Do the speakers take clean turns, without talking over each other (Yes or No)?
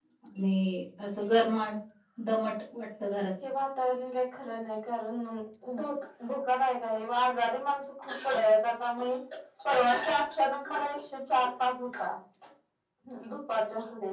Yes